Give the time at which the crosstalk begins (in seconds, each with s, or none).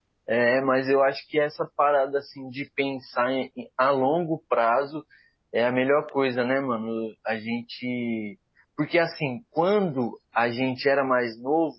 none